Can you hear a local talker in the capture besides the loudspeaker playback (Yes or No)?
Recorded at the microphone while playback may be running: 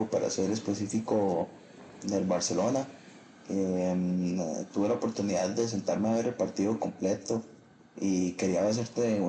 No